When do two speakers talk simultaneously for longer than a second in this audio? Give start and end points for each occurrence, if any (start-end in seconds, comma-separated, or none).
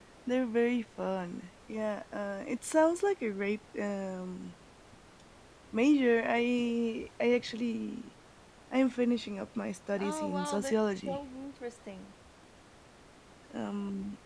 10.0-11.2